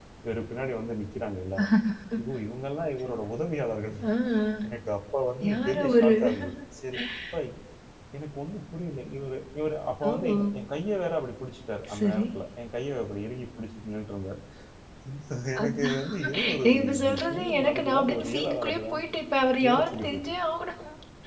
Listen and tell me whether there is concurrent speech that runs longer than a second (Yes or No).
Yes